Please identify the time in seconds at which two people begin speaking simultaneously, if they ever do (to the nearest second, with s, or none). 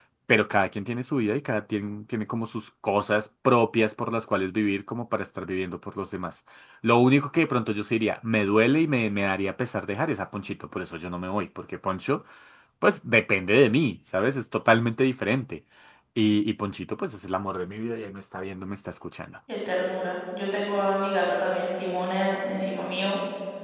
none